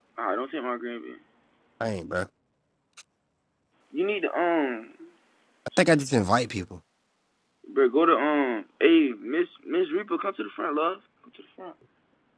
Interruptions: none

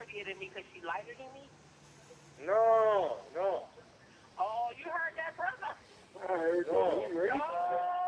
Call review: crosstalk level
present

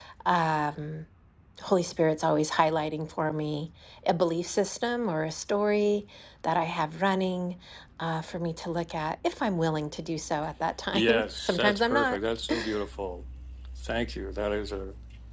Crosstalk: present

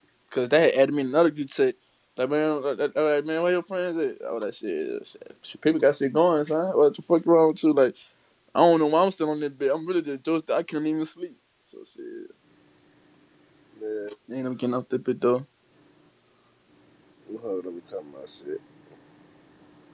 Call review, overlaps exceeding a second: none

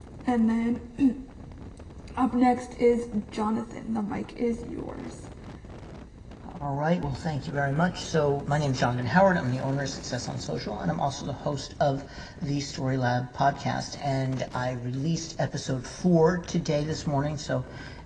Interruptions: none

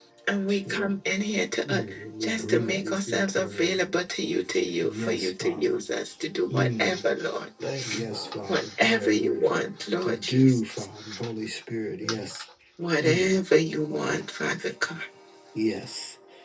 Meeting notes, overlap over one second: present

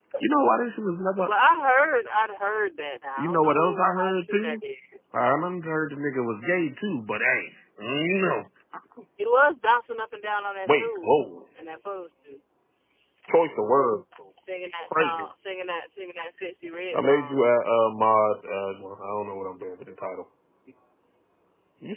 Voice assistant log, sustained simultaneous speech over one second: present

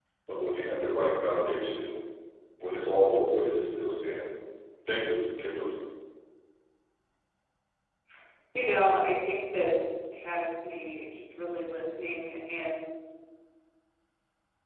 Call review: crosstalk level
none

